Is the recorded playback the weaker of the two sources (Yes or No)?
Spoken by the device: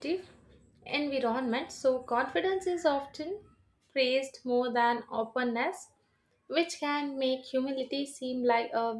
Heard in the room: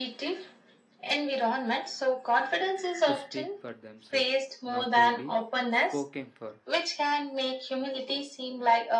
No